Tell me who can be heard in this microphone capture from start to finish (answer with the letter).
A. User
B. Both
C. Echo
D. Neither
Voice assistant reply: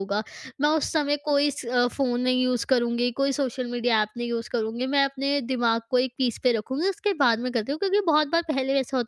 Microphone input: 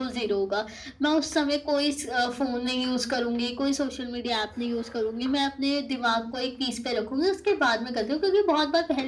C